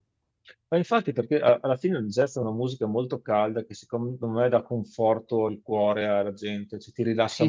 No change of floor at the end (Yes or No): No